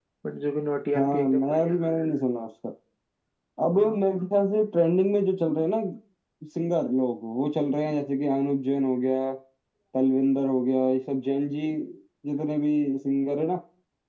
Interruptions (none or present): present